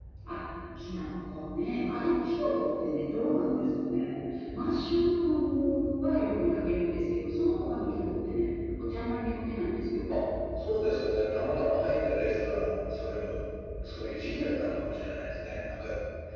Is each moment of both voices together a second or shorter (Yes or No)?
Yes